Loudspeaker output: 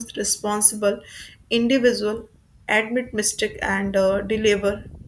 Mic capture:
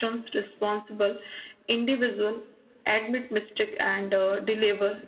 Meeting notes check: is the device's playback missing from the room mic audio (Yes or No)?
No